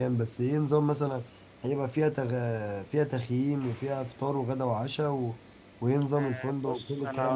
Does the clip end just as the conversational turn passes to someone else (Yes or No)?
Yes